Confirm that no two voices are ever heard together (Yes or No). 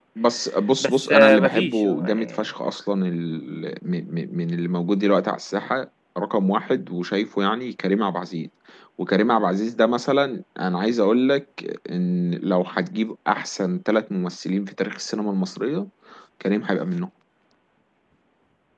No